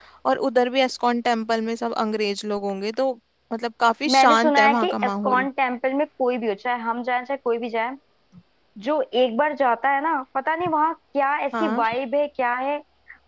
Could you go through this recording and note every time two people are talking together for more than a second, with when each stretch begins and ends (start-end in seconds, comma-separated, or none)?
4.1-5.5